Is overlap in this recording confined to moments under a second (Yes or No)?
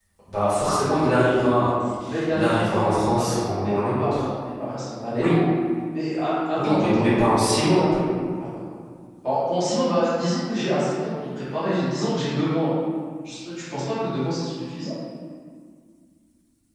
No